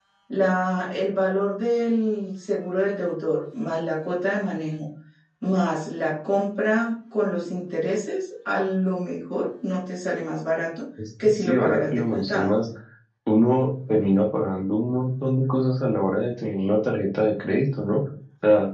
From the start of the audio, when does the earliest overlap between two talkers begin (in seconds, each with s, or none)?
11.2 s